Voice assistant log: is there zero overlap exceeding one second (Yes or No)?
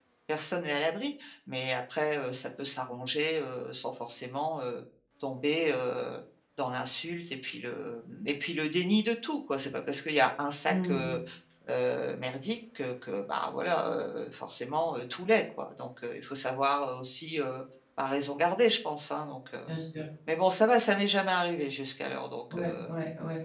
Yes